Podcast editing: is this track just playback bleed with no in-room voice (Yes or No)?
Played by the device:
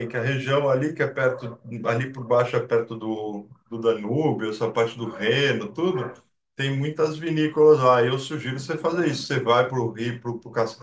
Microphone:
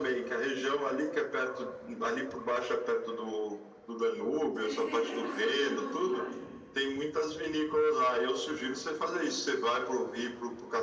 No